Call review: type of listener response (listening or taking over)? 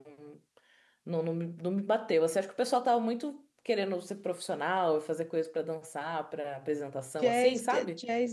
taking over